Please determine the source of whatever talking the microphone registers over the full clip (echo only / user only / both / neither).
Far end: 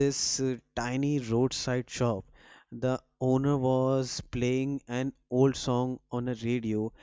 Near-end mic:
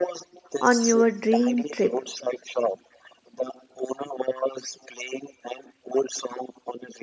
both